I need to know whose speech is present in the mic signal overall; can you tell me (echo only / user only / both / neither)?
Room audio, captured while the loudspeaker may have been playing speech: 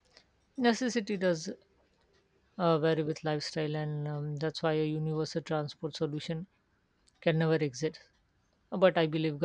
user only